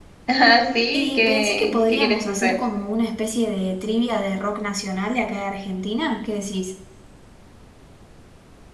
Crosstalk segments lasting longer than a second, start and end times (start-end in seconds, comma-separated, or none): 0.9-2.5